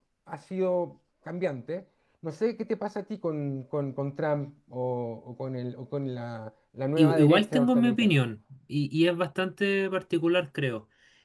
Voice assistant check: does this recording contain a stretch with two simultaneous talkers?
Yes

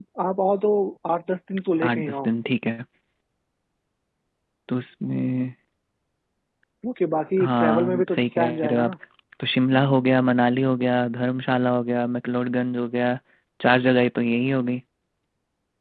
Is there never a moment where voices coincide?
No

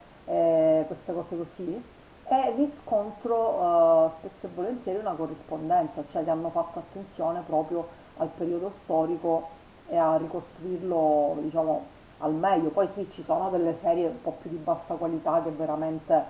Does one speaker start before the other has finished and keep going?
No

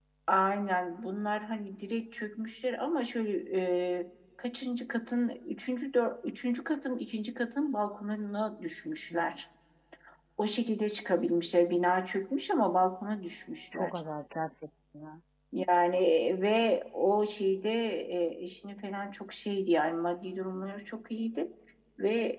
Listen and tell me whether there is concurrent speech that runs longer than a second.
No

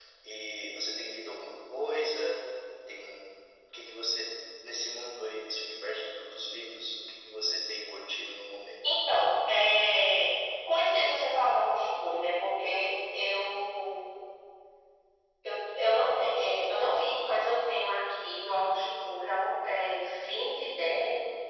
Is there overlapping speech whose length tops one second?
No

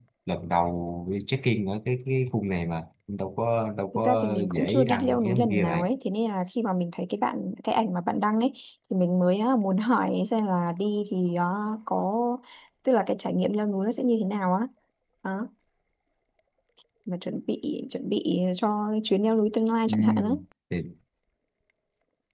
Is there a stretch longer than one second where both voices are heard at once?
Yes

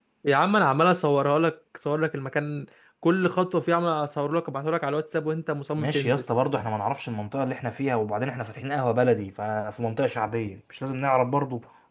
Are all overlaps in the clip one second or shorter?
Yes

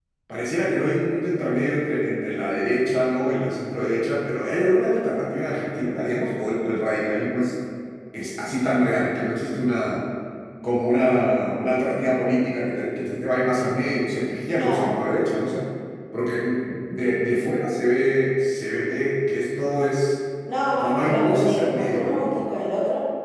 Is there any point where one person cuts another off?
Yes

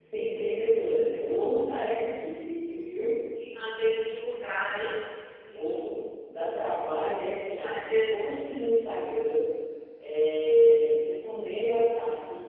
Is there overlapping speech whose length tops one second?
No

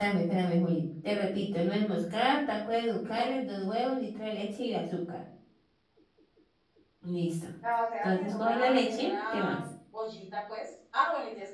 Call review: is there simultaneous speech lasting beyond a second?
Yes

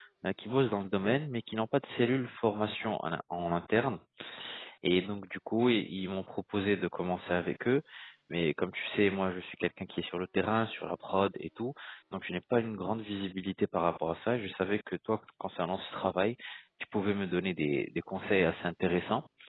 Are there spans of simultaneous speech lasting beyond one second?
No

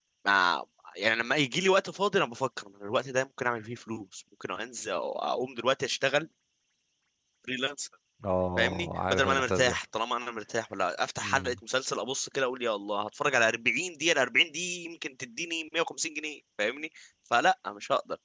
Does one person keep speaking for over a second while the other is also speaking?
Yes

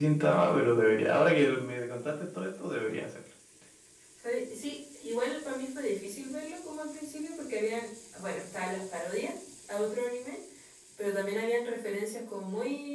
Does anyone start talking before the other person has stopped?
No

